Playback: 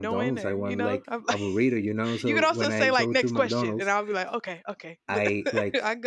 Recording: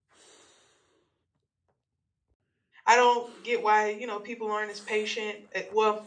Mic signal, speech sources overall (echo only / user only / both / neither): user only